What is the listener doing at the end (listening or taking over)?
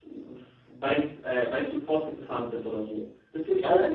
taking over